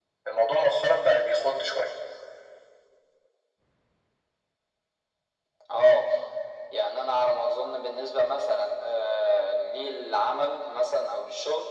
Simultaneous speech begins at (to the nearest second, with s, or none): none